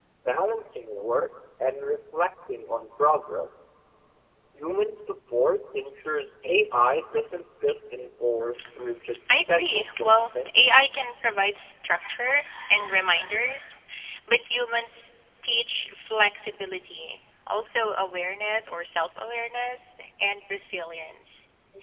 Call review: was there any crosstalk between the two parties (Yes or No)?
Yes